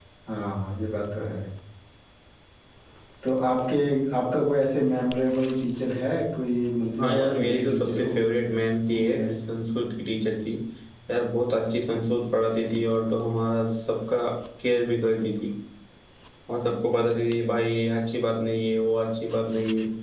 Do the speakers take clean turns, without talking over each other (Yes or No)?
No